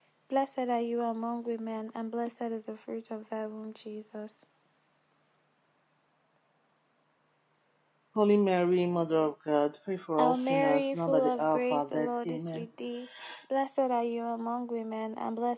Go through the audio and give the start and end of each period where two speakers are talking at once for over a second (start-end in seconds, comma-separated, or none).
10.2-12.7